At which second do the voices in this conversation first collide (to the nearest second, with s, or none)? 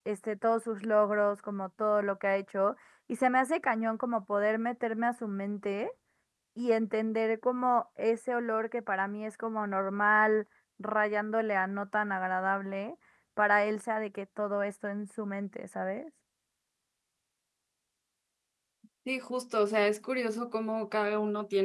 none